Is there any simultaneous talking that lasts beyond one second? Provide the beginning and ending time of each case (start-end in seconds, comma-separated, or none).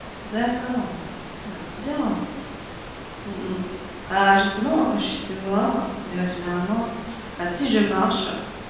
none